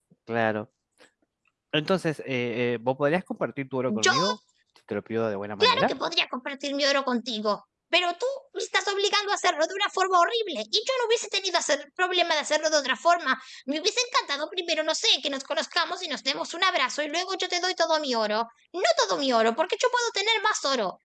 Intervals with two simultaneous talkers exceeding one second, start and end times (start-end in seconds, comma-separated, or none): none